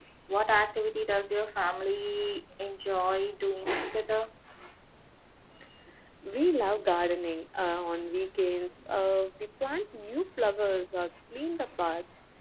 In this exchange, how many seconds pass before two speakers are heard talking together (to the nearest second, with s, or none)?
none